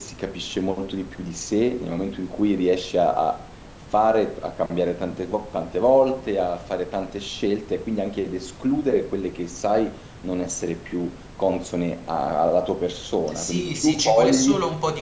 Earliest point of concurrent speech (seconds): 13.3 s

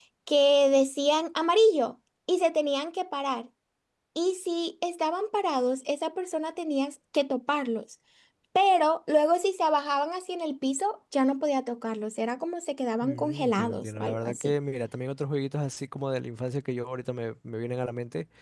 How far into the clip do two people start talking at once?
13.0 s

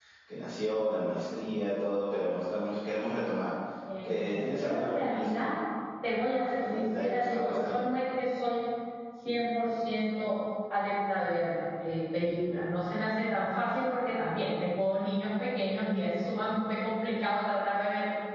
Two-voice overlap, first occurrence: 4.0 s

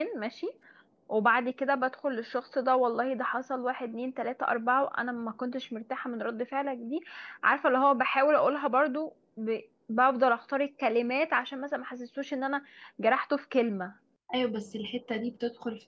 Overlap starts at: none

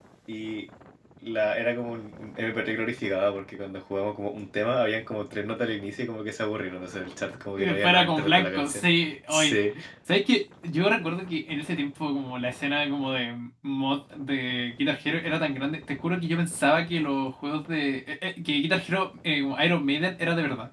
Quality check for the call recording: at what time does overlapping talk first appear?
7.6 s

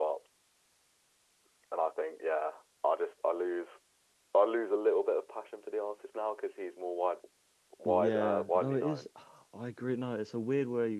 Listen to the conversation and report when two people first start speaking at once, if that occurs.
7.8 s

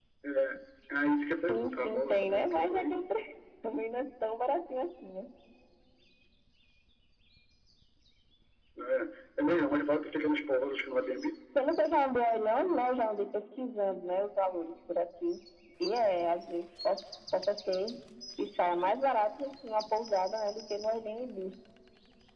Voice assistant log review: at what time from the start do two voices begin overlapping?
1.3 s

